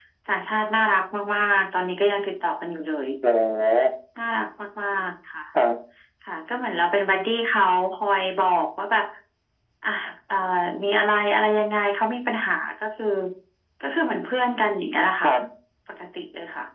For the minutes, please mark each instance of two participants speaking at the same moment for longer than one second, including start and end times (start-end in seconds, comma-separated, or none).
none